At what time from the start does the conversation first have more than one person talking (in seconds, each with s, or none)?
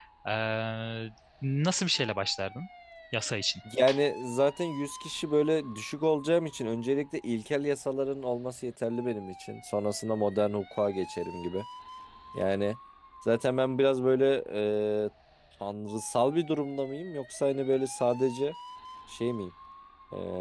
none